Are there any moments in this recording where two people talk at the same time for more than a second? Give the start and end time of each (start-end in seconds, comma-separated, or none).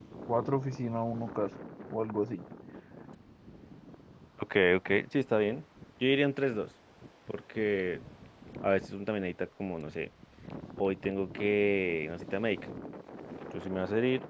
none